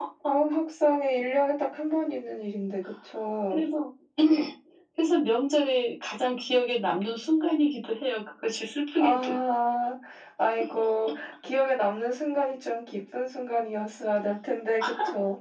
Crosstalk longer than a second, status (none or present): none